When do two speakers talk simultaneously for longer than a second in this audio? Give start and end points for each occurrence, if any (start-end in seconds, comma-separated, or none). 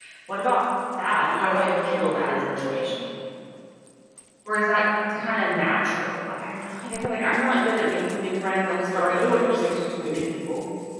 1.4-3.0, 8.9-10.2